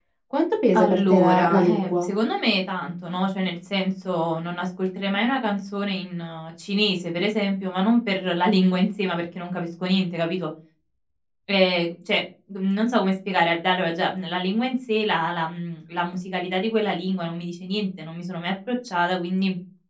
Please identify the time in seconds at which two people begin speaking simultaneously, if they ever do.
0.7 s

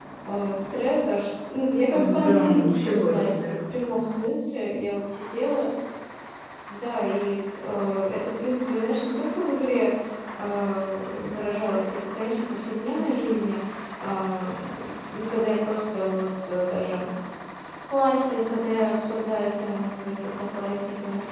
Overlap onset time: 1.9 s

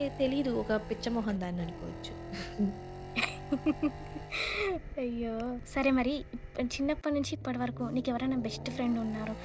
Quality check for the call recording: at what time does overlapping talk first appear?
none

